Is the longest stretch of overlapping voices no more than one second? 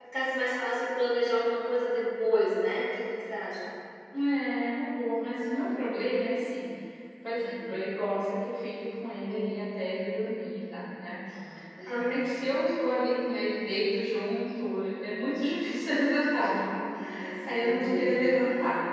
No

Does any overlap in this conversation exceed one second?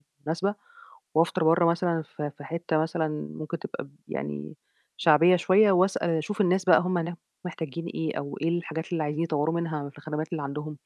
No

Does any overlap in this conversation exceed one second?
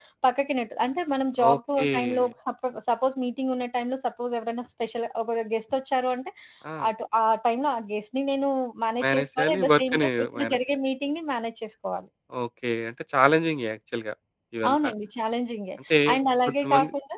Yes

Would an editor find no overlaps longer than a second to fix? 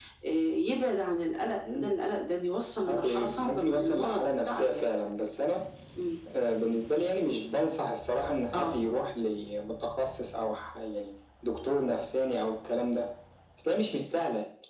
No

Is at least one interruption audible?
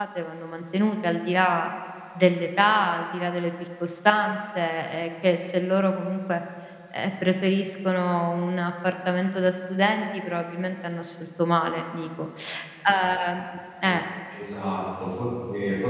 No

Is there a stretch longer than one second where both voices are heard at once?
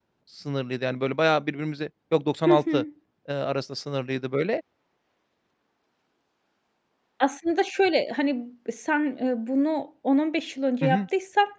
No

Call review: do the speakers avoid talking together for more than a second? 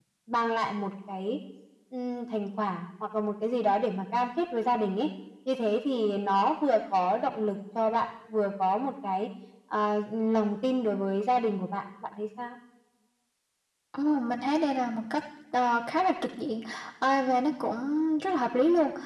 Yes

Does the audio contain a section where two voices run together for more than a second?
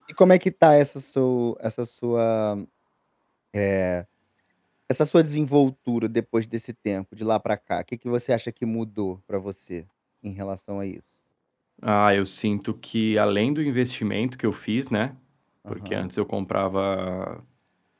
No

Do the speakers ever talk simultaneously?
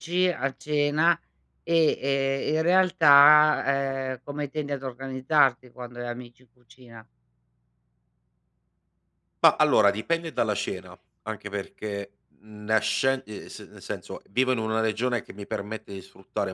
No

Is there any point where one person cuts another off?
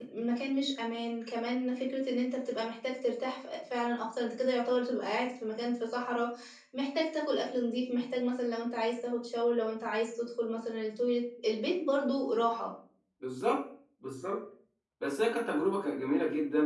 No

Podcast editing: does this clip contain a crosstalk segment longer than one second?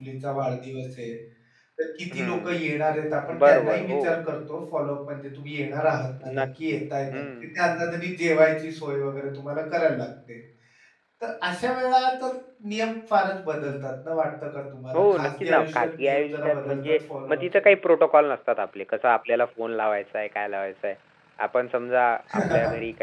Yes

